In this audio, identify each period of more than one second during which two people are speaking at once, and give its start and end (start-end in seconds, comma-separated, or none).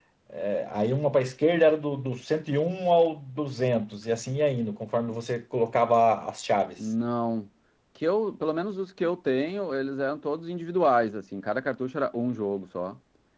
none